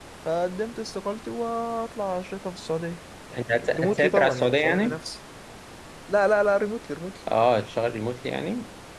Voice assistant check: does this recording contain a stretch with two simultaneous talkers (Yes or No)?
Yes